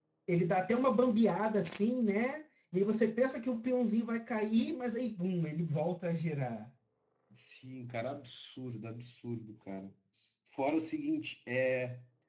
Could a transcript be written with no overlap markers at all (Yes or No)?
Yes